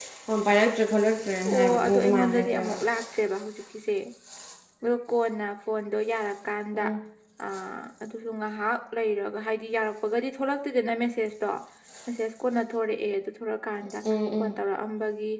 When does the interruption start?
1.4 s

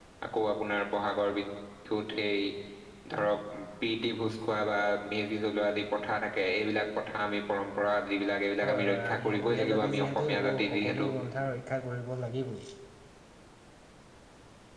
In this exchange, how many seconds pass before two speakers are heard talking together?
8.6 s

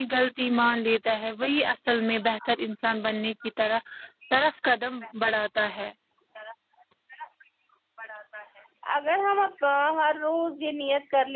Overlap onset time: none

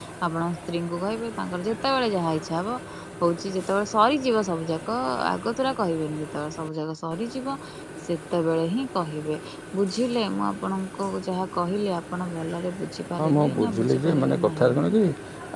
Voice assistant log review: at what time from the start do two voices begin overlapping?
13.2 s

